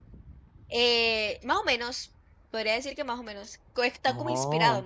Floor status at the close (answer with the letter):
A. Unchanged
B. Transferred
A